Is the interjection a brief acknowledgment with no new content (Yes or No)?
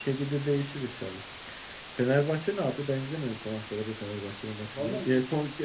Yes